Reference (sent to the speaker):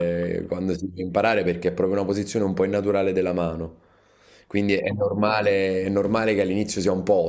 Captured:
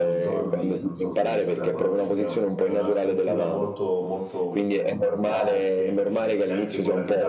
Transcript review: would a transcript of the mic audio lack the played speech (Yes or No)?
No